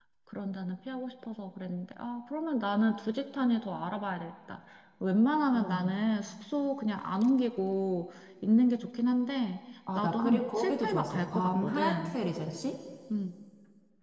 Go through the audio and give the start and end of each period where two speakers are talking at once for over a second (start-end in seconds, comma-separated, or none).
10.0-12.2